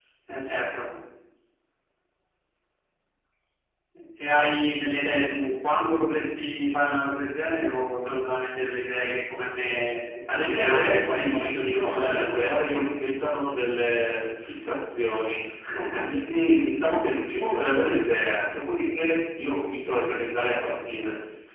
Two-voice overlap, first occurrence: 10.3 s

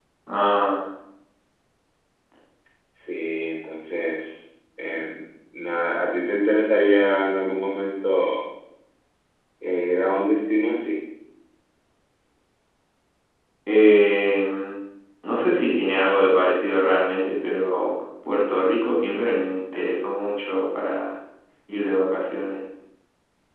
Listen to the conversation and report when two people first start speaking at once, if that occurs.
none

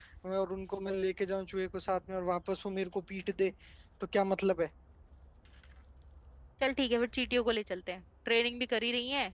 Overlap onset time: none

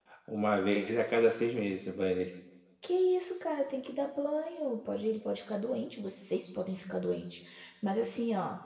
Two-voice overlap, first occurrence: none

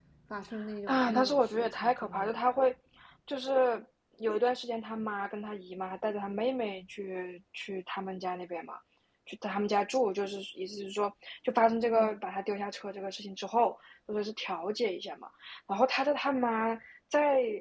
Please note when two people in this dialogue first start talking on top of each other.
0.9 s

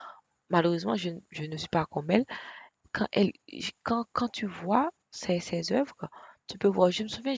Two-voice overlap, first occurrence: none

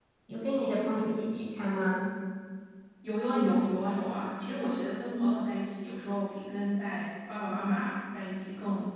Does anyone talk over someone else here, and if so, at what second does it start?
none

